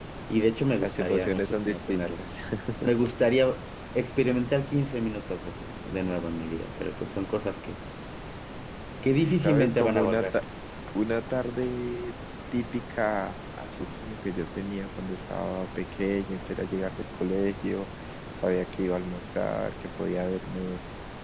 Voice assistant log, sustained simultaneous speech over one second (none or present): present